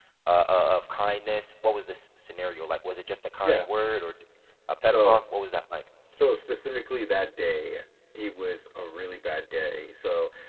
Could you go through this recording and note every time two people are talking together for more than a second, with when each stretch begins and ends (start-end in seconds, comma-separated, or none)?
none